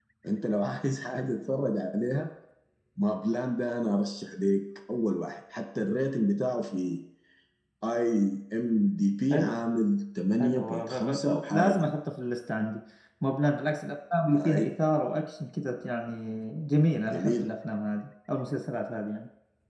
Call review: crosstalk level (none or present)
present